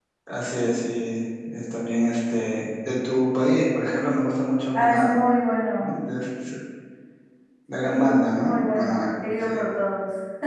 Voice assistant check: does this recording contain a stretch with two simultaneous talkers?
Yes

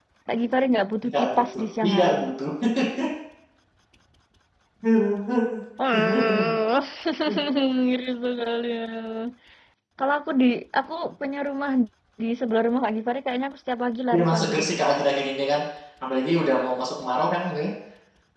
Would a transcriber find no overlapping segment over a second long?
No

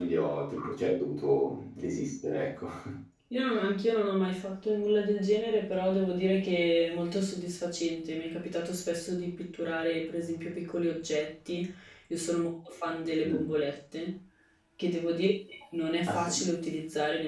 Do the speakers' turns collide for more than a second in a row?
No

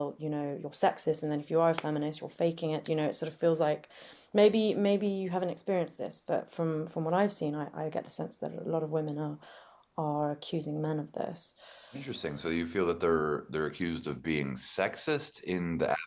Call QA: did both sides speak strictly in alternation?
Yes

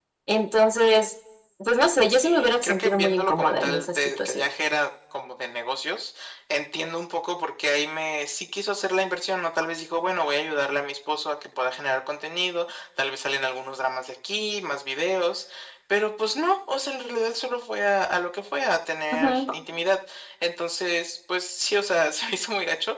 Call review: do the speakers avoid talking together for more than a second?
No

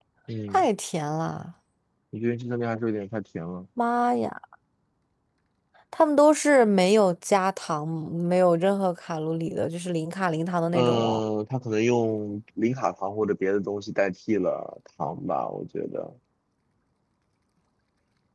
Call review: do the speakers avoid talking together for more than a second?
Yes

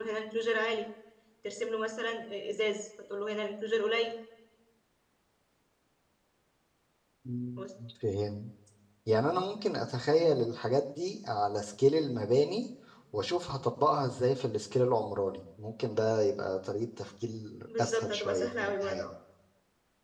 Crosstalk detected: Yes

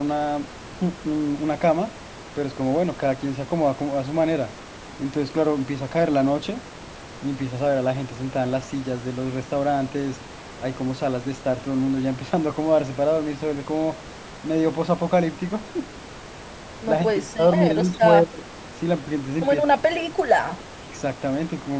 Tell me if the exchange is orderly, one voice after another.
No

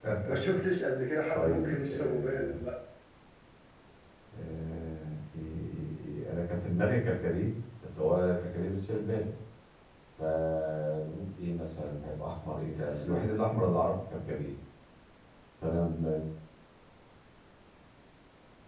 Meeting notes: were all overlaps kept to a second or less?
No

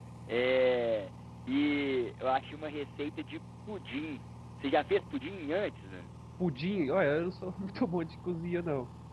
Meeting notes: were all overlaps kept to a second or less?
Yes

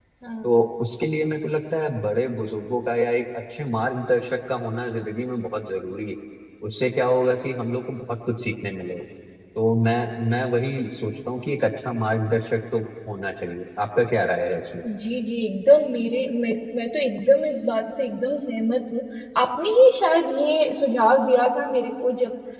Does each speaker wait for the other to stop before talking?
Yes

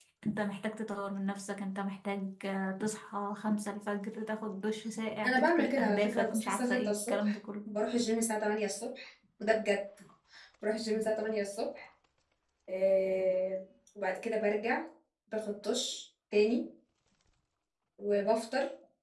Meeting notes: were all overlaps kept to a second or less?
No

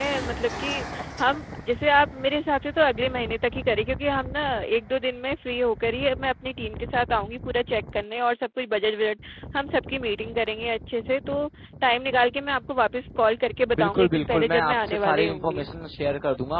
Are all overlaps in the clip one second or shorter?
No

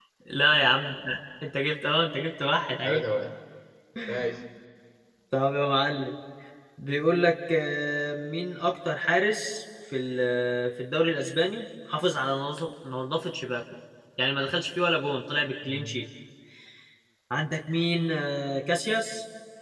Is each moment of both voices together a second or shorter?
Yes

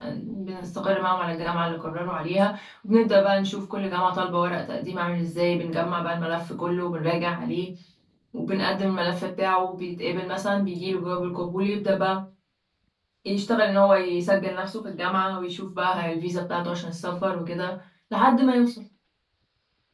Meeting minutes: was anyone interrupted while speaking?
No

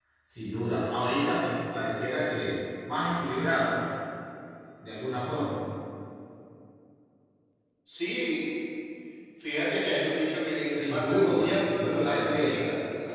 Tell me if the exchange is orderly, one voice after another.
No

